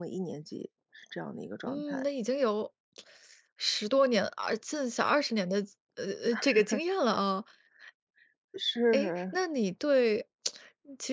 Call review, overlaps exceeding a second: none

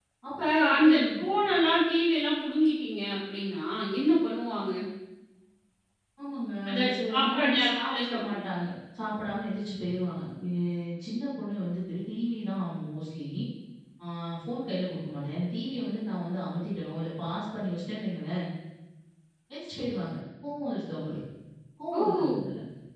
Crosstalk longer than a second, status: present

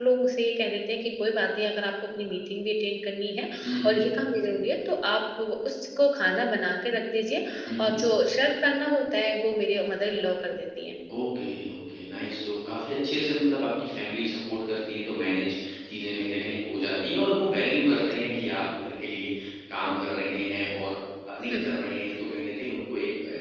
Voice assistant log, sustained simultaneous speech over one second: none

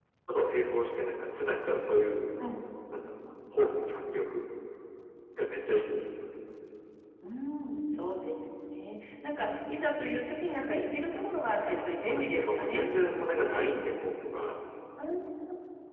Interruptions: present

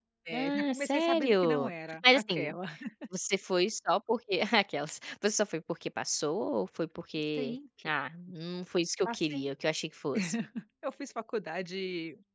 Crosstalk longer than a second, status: present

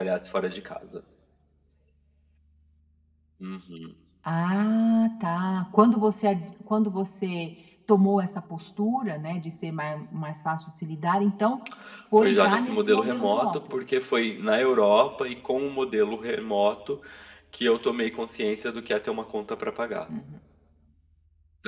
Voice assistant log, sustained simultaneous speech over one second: present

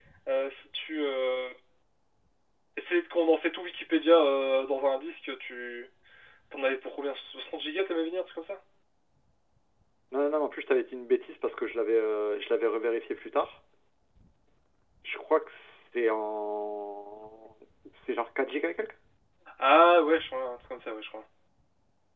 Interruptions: none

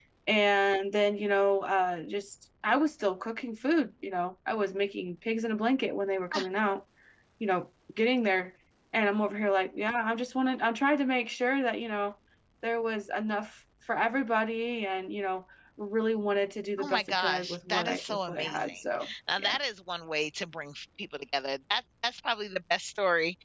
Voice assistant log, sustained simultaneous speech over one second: present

